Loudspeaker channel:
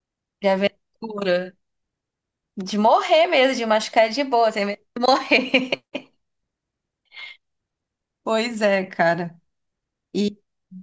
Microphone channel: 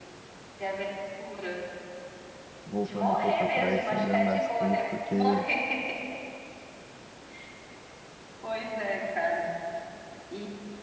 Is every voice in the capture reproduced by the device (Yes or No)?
No